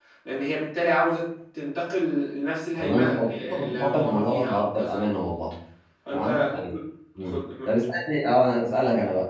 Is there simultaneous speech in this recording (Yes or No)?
Yes